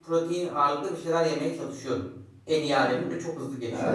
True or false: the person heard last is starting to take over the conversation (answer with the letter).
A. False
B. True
B